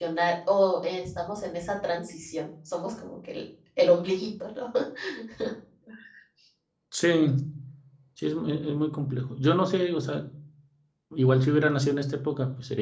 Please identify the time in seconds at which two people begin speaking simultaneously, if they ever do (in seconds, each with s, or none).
none